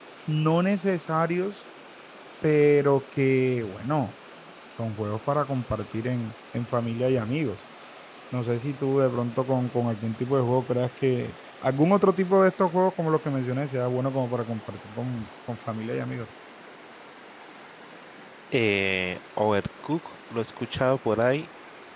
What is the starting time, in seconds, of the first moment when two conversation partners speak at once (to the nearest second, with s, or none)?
none